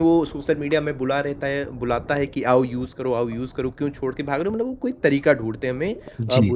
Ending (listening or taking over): listening